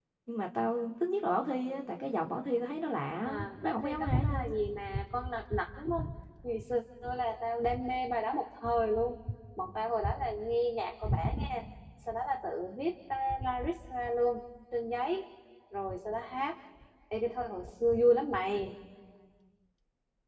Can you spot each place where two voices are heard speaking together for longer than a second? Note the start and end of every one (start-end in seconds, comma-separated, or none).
3.2-4.5